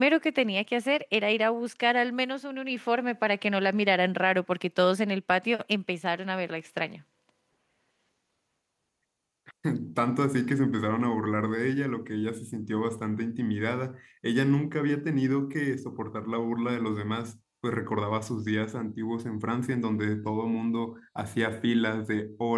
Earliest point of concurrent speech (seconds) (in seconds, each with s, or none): none